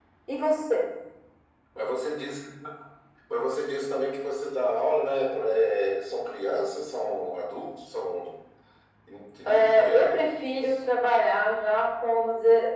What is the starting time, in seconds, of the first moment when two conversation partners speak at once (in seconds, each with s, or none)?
9.5 s